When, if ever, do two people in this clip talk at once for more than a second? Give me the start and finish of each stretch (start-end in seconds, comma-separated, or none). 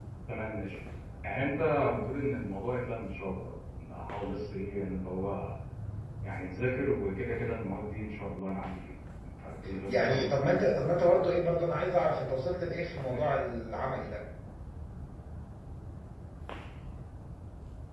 9.9-11.3